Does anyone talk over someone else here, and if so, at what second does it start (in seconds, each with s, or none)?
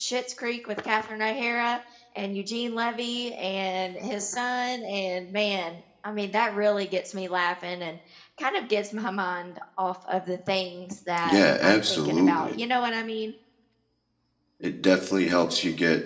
11.2 s